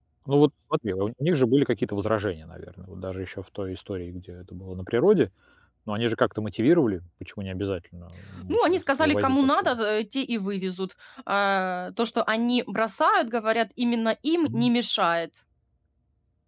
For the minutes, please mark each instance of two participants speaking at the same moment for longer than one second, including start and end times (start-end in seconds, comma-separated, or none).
8.5-9.8